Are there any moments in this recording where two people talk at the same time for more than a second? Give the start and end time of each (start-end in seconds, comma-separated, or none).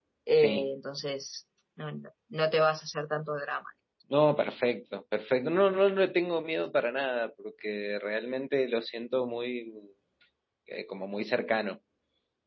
none